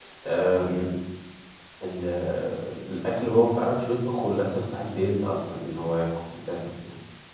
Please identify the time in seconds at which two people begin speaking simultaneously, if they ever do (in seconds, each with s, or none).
none